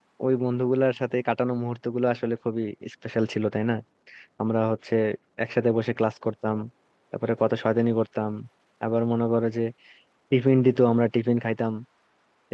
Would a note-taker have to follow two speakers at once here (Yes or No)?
No